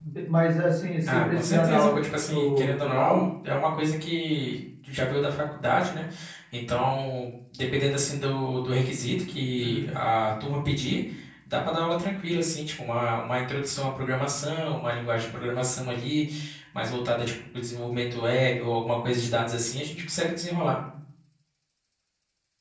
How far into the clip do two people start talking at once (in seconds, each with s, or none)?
1.1 s